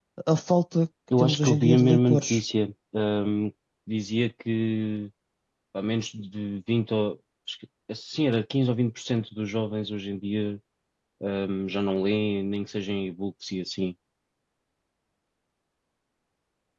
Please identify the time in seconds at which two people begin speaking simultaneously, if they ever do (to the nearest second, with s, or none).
1 s